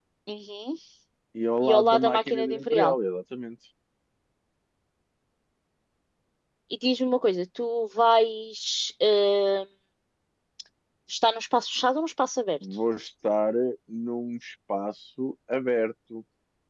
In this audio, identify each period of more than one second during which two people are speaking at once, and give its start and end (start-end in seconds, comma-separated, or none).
1.6-3.0